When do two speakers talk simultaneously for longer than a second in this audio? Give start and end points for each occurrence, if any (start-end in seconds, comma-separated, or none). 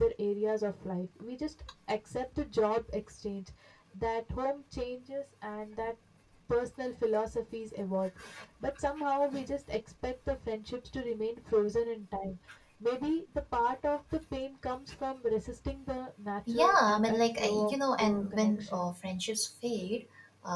16.5-18.9